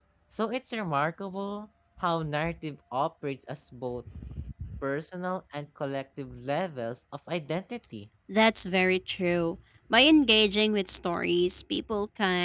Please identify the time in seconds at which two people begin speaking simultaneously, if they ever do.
none

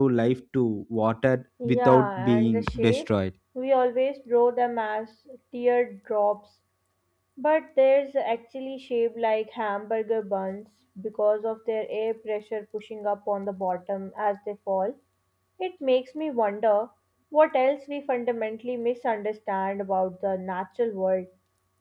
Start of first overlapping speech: 1.6 s

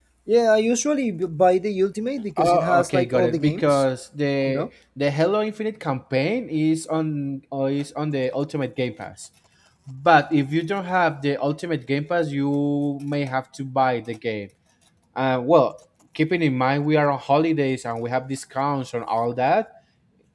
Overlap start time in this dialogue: 2.4 s

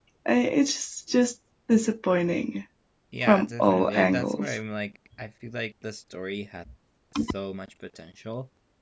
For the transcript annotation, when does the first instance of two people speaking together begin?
3.3 s

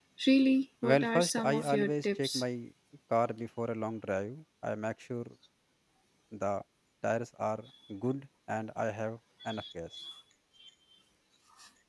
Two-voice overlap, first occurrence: 0.8 s

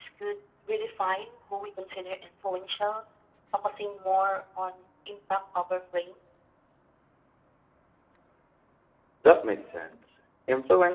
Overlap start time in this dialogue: none

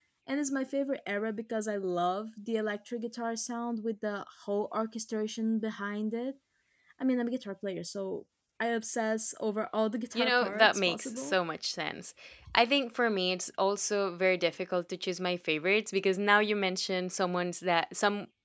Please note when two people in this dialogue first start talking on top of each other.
10.1 s

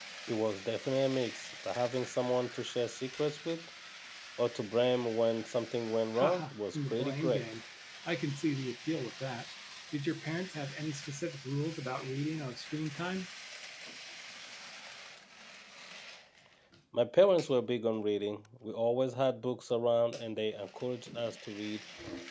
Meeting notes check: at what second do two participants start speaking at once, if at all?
6.1 s

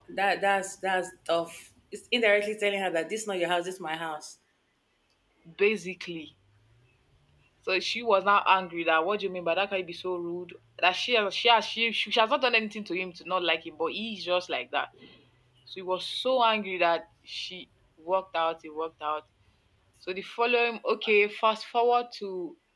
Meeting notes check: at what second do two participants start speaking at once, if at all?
none

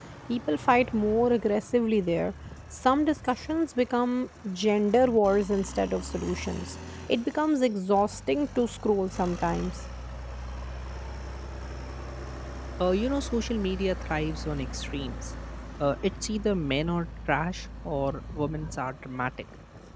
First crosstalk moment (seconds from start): none

